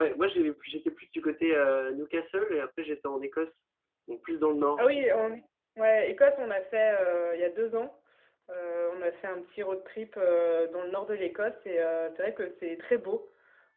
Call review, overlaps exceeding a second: none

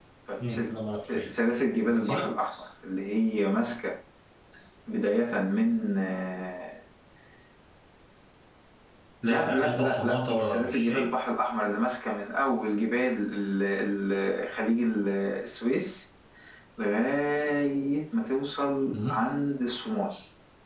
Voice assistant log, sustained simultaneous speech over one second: present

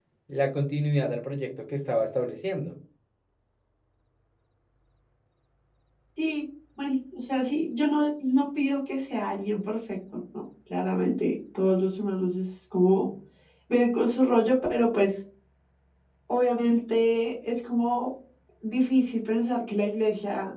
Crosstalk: none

